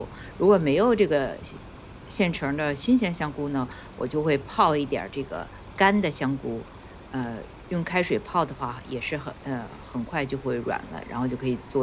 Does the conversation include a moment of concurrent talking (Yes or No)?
No